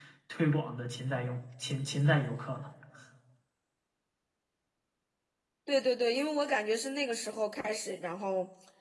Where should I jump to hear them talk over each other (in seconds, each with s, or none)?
none